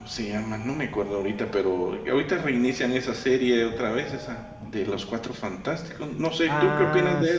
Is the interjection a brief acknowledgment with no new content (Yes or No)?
No